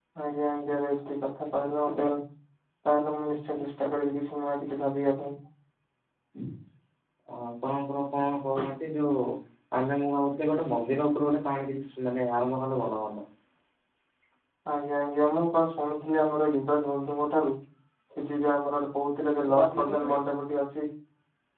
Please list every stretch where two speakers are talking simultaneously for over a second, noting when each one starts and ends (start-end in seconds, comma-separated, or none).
none